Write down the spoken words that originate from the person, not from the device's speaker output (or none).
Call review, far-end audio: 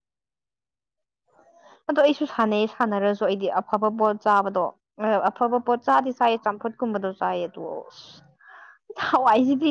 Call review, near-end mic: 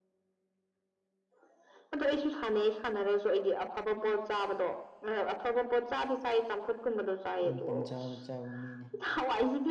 ꯑꯗꯨꯝ ꯄꯪꯆꯥꯥꯗ ꯆꯥꯕ ꯃꯤꯅꯤ